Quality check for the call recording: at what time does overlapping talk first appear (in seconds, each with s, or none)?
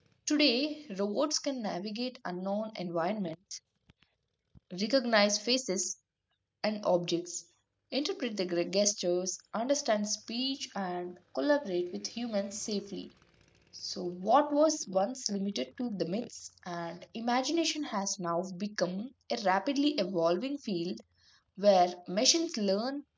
none